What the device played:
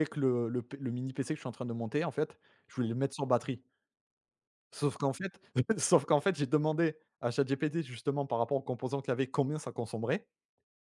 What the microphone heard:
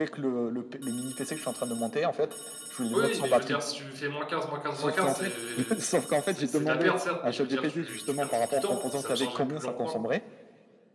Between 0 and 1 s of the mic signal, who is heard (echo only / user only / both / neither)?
echo only